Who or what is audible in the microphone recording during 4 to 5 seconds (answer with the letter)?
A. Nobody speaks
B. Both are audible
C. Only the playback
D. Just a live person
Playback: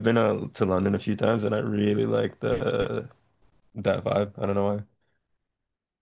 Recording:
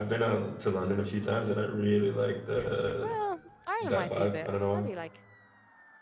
B